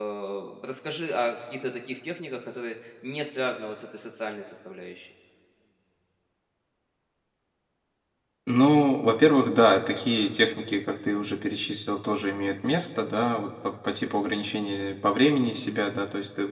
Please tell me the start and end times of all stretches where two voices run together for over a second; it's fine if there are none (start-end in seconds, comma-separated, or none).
none